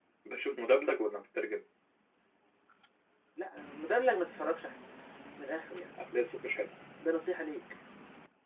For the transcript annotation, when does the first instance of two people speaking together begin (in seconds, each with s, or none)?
none